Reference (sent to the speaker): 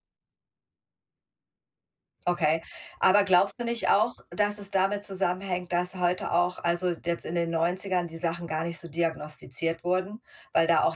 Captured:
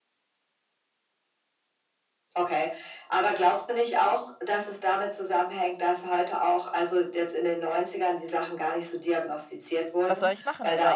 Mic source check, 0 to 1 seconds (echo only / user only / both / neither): neither